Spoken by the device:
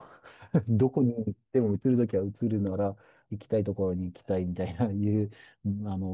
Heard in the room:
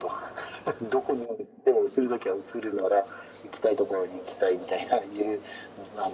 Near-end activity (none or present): none